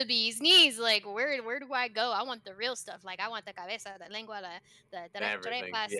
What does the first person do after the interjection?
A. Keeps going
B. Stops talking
A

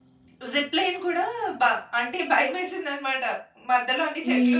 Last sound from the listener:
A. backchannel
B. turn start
A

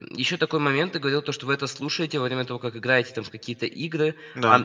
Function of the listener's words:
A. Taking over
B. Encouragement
B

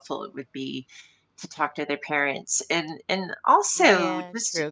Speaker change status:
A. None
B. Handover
B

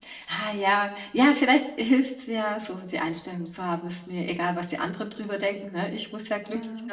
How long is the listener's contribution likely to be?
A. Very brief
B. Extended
A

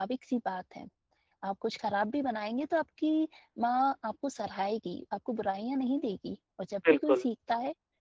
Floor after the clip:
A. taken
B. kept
B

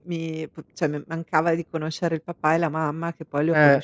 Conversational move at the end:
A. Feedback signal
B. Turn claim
A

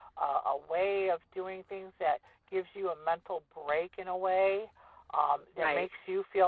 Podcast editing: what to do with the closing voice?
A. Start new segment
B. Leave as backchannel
B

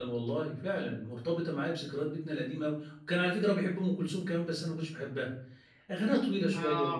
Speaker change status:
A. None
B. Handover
A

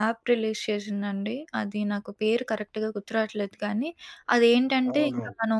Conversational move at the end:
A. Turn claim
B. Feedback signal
B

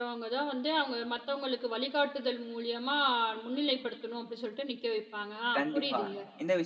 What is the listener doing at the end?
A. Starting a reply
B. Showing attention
A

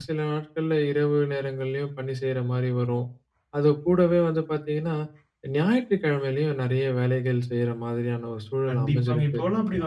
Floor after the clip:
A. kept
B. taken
B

